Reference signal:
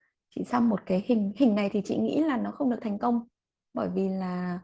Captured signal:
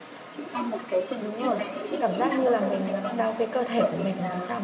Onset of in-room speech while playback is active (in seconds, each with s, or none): 1.2 s